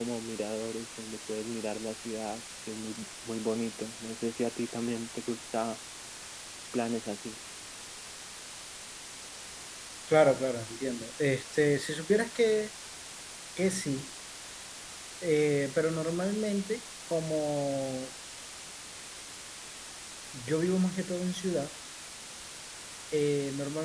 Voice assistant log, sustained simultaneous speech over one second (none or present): none